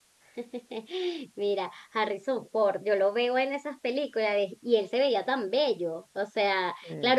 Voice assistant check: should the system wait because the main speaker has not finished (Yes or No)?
Yes